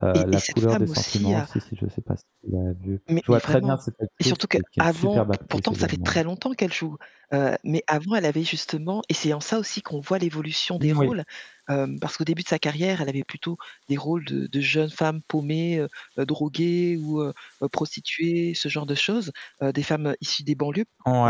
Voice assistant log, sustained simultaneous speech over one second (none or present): present